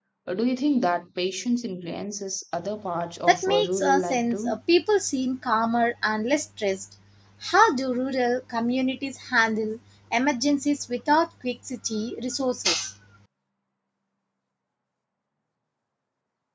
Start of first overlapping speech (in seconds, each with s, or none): 3.3 s